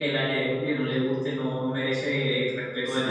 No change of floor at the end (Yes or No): No